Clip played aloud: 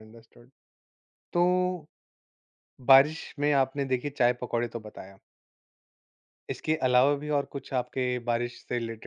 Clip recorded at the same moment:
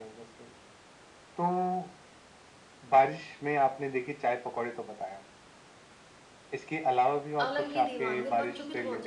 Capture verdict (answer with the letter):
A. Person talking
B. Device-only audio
A